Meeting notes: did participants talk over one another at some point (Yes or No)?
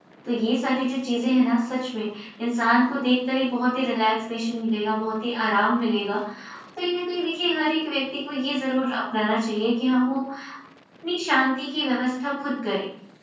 No